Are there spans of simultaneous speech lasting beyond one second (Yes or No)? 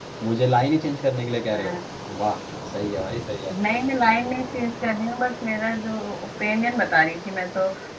No